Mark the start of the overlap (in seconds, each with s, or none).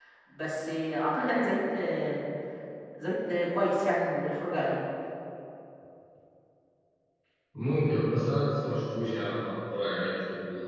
none